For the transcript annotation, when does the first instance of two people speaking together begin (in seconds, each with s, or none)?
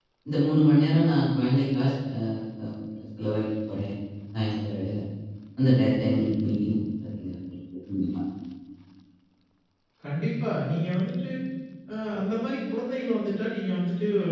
none